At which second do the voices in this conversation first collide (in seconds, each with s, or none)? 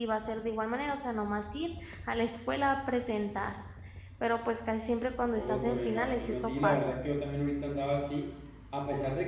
5.4 s